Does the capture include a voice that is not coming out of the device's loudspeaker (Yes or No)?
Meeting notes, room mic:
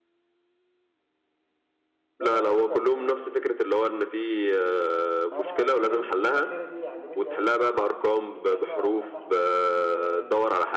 Yes